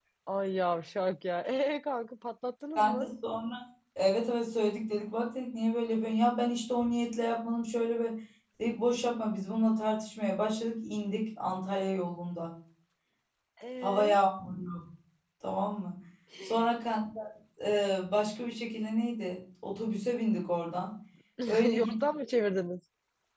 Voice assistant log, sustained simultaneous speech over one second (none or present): none